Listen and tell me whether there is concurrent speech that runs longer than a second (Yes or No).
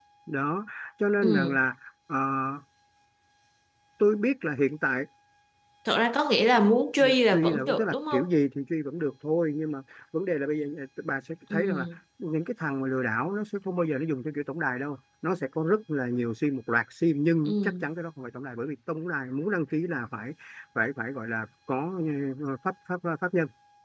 Yes